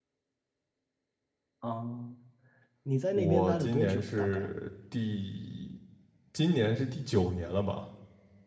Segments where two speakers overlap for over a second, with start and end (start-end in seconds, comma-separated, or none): 3.1-4.5